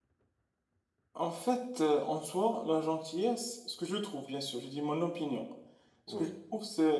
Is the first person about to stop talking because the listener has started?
No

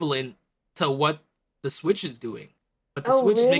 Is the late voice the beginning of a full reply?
No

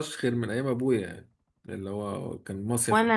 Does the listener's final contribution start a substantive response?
Yes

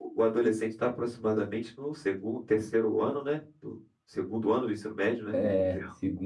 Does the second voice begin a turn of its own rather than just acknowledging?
Yes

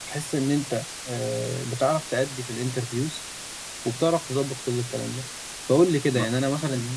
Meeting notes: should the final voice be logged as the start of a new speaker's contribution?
No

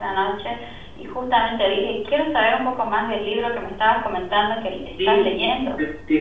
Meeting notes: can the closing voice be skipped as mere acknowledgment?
No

